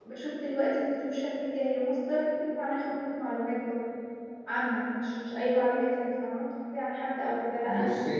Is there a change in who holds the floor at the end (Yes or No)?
No